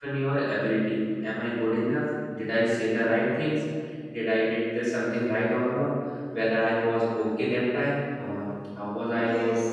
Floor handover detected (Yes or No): No